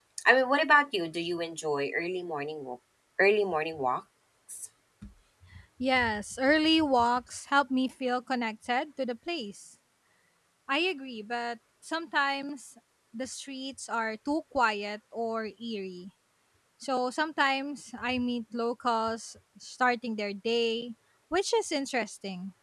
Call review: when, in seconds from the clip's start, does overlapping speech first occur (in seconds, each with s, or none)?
none